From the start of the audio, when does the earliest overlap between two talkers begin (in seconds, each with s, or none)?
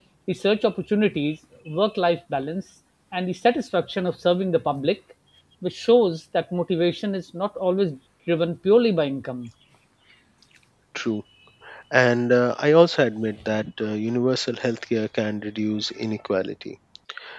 none